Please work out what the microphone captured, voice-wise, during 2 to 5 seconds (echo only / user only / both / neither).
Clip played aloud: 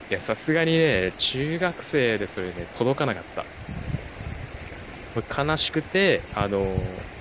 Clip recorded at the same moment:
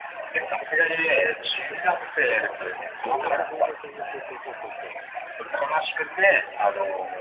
both